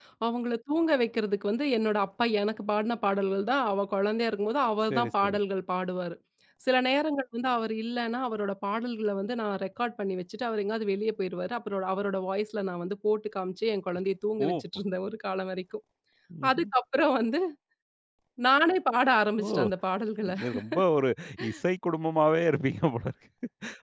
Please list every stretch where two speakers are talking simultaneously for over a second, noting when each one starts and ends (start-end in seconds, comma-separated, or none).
none